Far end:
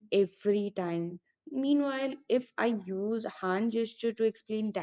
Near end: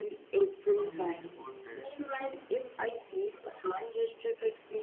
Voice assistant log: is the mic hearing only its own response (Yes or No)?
No